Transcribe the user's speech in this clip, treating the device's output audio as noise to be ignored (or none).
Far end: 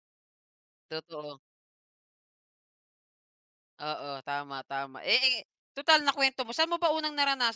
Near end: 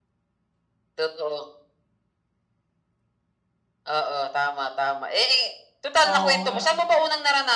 Oo nga,